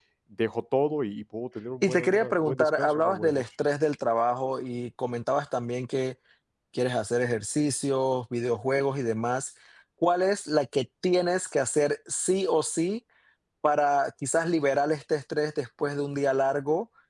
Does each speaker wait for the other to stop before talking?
No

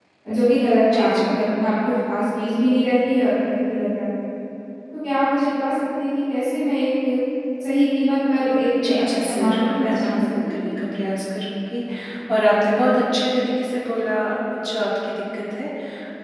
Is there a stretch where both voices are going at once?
Yes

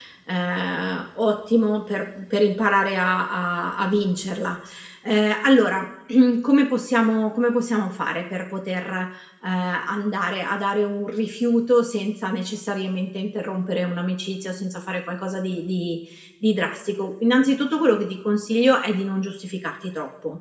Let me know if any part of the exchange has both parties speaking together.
No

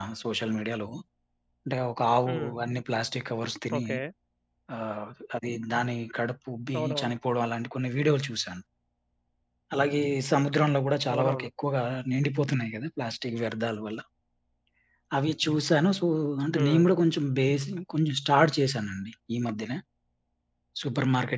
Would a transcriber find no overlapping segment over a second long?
Yes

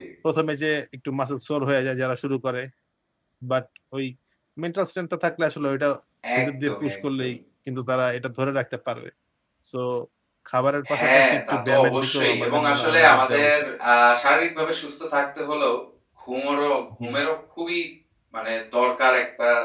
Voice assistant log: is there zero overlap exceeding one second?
No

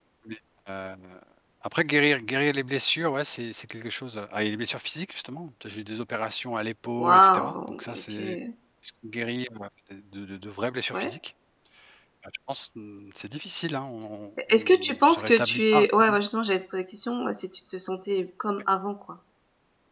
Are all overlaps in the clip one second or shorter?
No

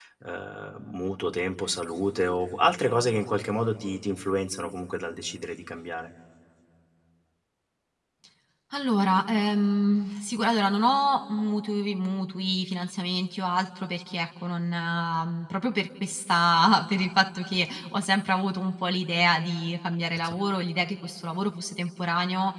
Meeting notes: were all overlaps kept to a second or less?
Yes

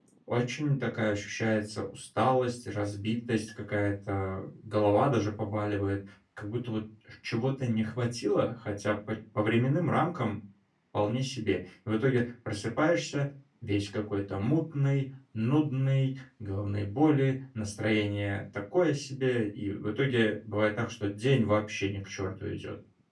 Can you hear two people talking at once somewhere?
No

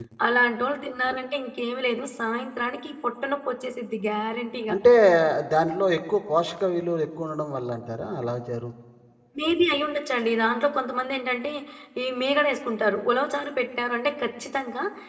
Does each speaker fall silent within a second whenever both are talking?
Yes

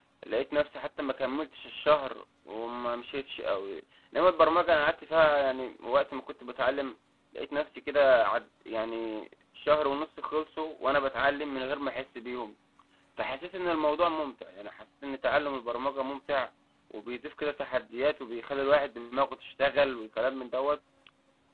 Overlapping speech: No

